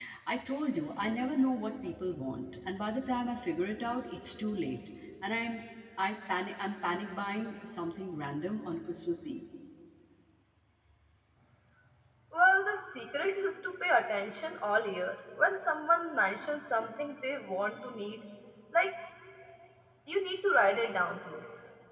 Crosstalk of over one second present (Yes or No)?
No